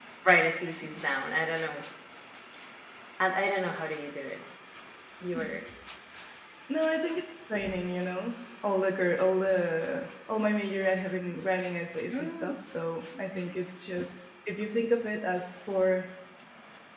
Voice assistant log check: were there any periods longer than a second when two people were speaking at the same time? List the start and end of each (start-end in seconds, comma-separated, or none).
none